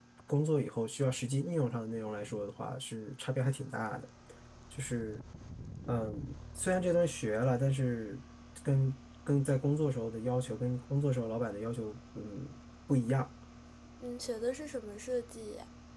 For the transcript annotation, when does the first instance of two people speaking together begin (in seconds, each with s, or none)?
none